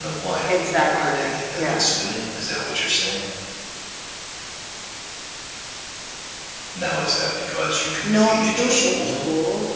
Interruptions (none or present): present